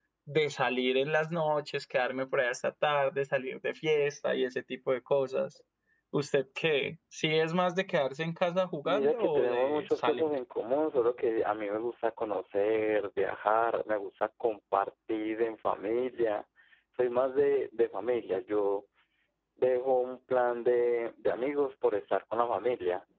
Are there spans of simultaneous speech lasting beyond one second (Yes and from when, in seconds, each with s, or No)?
Yes, from 8.8 s